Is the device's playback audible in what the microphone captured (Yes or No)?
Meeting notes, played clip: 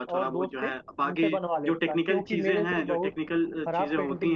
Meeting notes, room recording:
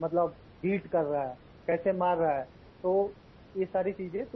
No